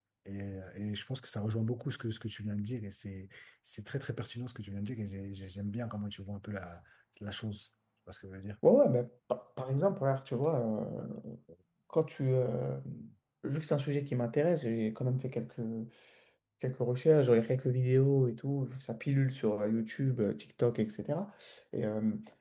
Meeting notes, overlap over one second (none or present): none